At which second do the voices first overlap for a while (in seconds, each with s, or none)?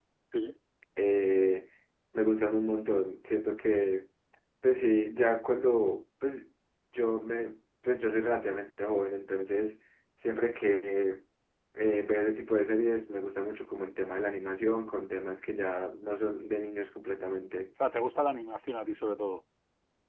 none